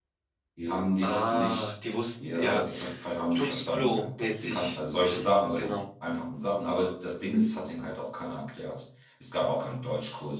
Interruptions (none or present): present